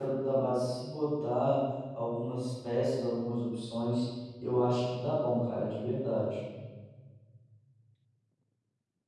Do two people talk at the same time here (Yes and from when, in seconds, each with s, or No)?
No